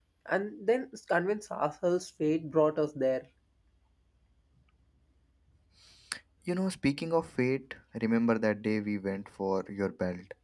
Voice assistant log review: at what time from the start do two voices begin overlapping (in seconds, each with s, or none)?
none